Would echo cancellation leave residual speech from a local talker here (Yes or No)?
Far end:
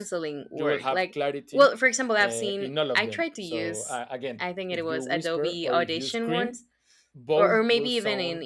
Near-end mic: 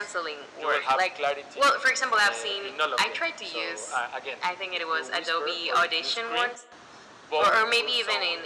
No